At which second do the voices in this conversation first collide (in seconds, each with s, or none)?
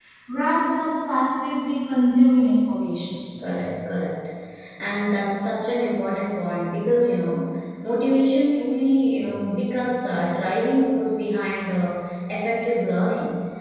none